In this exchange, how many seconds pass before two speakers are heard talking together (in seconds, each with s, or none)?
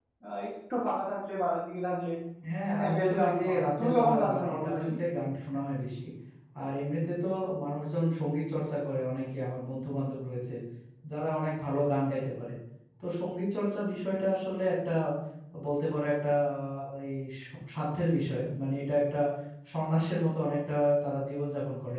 2.8 s